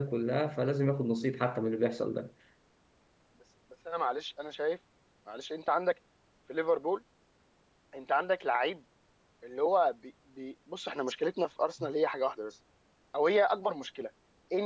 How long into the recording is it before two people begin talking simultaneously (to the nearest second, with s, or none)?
none